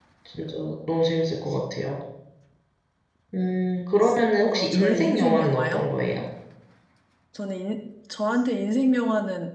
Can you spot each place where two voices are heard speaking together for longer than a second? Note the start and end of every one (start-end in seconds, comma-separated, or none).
4.4-5.8